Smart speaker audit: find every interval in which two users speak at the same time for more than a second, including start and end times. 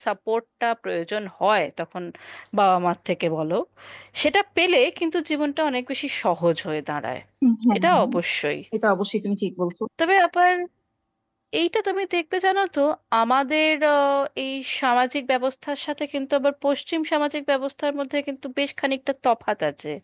none

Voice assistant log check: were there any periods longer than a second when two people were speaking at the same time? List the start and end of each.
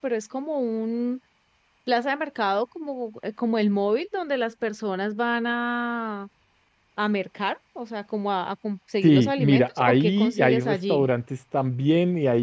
9.0-11.1

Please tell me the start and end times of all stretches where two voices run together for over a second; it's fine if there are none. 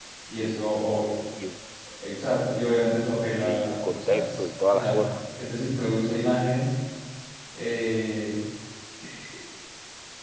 3.4-5.0

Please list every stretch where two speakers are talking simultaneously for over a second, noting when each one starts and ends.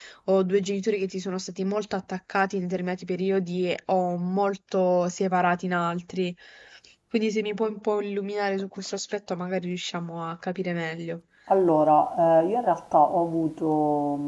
none

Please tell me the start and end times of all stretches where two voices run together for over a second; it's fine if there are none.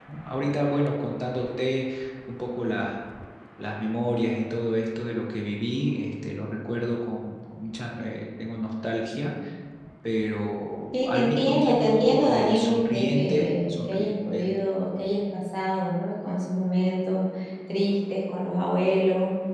10.9-14.5

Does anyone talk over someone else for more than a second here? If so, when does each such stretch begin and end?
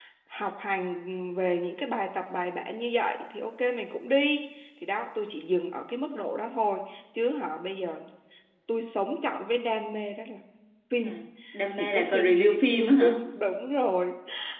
11.8-13.2

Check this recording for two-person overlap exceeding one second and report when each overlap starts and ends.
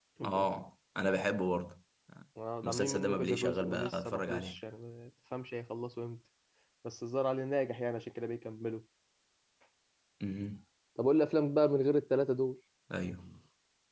2.6-4.6

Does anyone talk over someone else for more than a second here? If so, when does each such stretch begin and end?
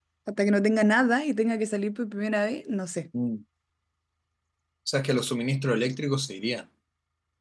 none

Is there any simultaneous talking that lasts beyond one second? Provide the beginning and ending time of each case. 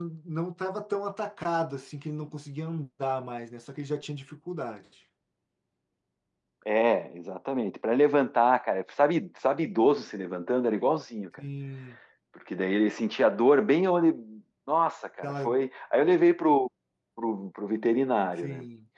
none

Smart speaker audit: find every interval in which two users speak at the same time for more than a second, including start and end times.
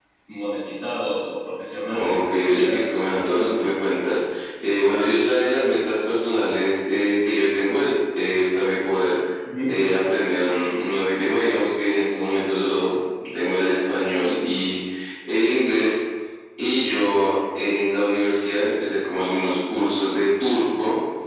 1.9-3.6

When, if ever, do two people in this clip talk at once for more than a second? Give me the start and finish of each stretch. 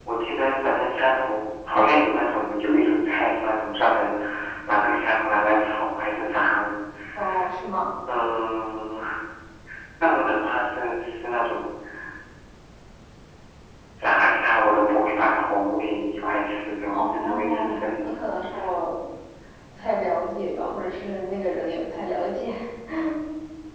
16.9-18.2

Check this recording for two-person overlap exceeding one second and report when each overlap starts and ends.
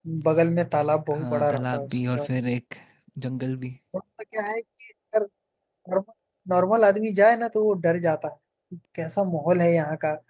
1.1-2.4

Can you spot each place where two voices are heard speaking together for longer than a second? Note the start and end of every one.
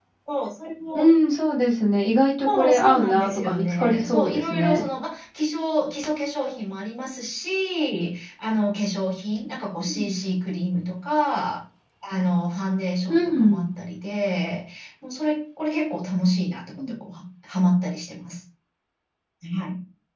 2.5-4.8

